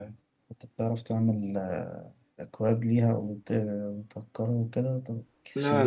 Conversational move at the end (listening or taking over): taking over